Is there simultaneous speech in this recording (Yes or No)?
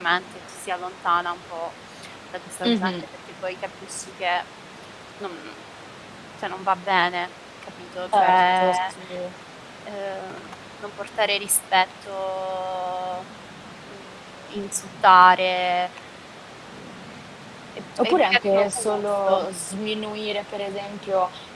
Yes